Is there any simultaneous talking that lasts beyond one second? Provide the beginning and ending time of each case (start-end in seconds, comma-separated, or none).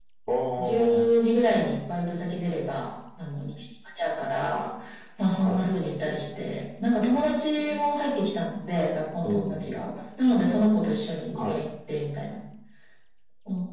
none